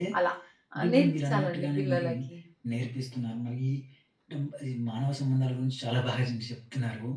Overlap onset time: 0.8 s

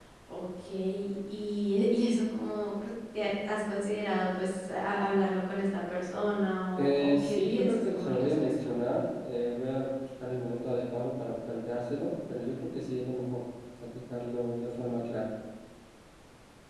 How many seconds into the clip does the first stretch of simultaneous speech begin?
6.8 s

